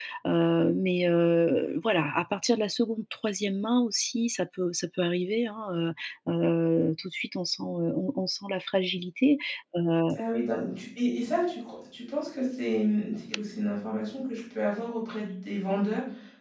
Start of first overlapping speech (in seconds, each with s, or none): none